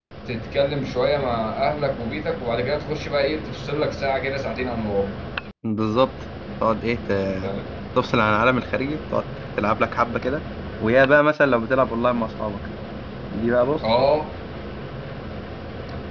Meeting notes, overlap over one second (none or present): none